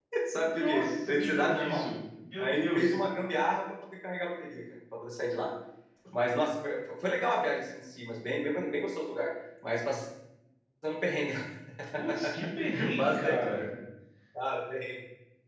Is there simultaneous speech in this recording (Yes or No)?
Yes